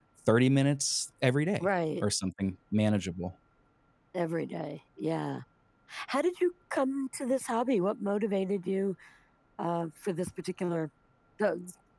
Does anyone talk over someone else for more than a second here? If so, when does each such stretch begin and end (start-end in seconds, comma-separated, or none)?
none